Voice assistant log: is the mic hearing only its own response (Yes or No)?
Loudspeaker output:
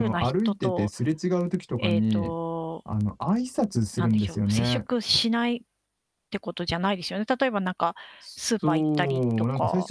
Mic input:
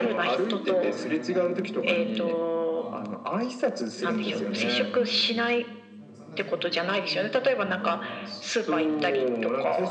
No